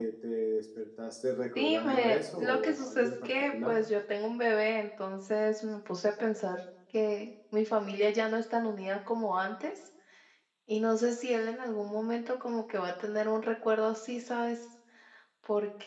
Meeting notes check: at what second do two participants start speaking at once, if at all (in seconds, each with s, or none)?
1.6 s